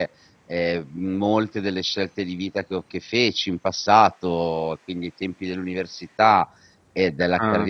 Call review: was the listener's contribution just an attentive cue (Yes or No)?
Yes